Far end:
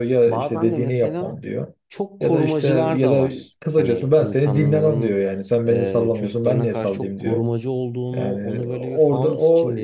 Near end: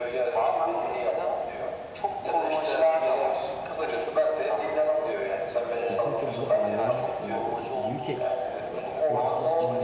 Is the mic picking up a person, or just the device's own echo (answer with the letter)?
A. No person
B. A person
B